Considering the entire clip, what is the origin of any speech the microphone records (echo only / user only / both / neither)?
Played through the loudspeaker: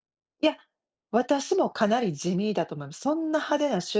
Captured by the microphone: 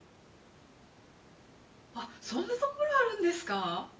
user only